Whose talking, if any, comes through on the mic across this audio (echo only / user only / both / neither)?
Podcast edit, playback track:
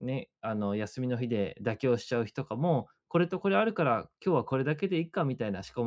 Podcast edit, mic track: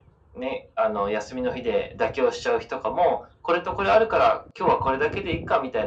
echo only